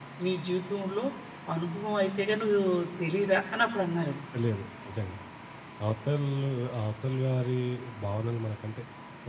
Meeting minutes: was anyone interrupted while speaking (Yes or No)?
No